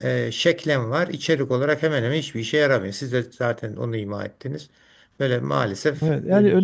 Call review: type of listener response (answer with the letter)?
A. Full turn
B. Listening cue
A